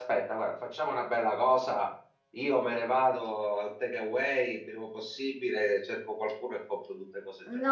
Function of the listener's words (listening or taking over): taking over